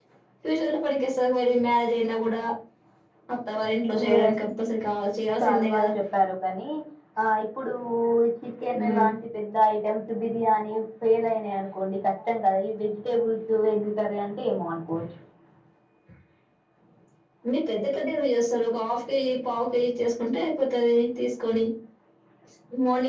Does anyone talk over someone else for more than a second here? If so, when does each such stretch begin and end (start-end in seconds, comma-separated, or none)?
none